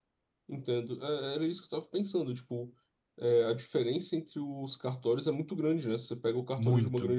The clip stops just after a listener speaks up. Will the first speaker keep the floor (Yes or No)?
Yes